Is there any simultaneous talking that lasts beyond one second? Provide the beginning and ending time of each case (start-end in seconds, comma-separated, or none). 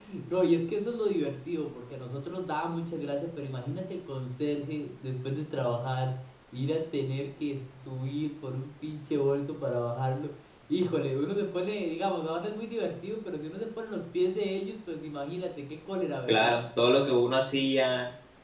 none